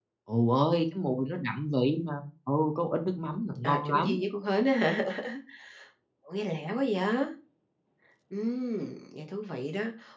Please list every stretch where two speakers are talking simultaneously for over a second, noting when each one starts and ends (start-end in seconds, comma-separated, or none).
none